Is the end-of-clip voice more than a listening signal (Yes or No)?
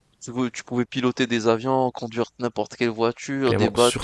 Yes